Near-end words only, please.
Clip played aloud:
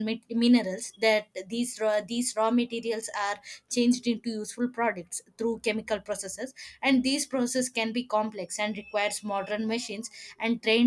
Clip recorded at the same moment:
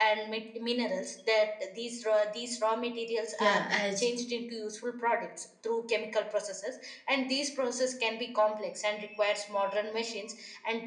Yeah, as

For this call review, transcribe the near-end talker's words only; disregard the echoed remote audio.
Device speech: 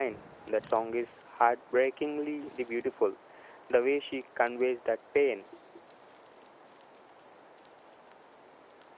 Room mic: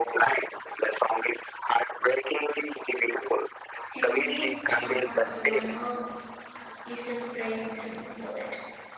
Henrik Hammer, uh, Lammer is a prime example for that.

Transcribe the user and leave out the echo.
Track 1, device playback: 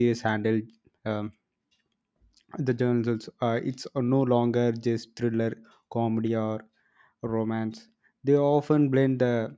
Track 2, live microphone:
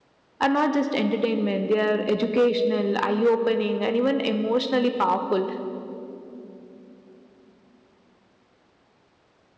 are not just entertainment they are educational eye opening and even emotionally powerful

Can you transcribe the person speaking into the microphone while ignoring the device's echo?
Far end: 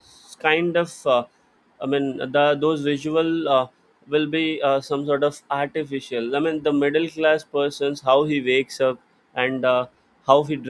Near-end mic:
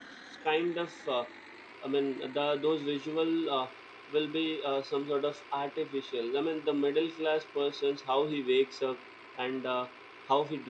none

